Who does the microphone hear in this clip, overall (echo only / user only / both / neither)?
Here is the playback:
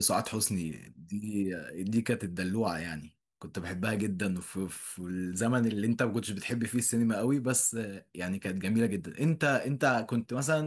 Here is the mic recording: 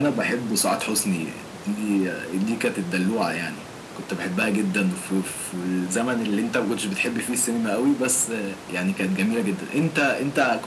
echo only